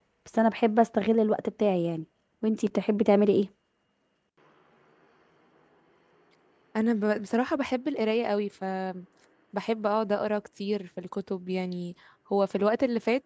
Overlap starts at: none

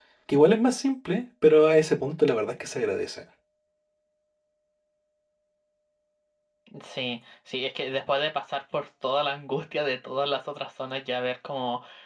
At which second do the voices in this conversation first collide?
none

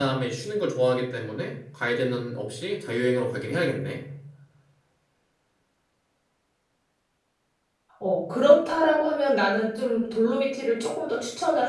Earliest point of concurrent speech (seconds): none

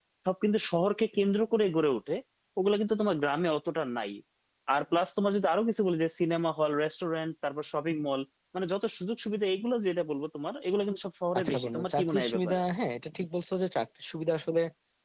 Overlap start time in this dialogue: 11.3 s

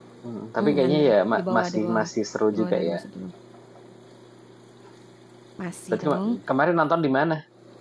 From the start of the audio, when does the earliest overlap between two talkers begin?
0.6 s

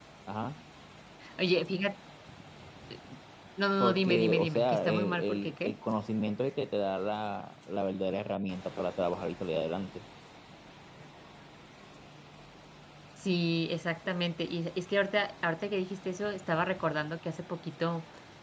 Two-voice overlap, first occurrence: 3.8 s

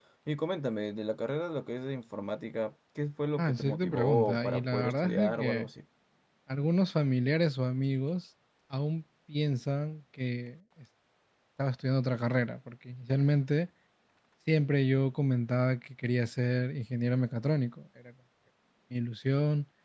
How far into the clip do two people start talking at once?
3.4 s

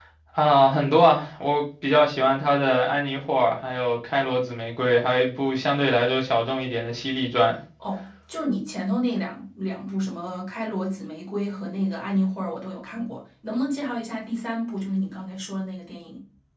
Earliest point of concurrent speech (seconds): none

